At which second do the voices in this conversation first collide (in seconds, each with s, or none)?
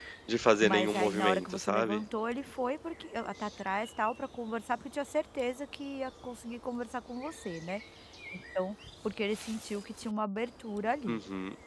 0.6 s